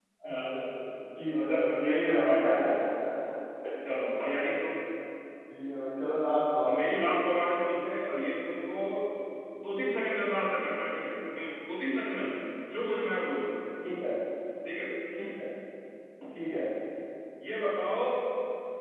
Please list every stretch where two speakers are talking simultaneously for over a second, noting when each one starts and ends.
1.2-2.7

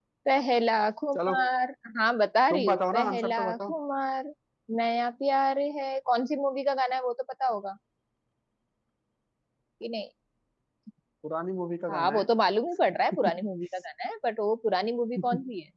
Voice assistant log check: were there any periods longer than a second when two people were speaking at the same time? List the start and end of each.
2.5-3.7

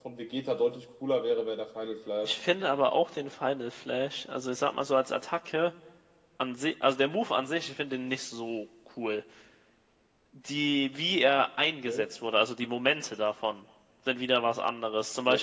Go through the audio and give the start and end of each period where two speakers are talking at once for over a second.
none

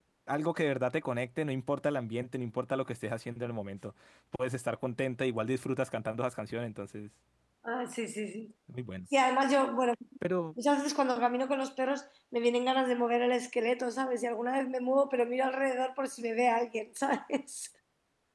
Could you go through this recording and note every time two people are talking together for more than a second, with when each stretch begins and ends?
none

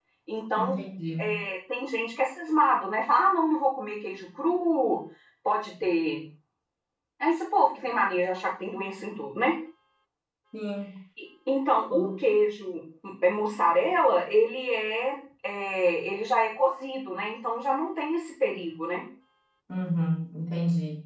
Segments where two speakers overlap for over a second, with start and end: none

